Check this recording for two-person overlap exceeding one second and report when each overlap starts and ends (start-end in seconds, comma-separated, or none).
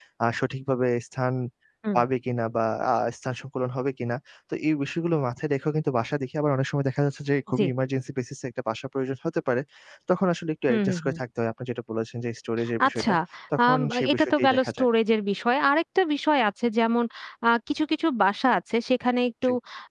13.6-14.9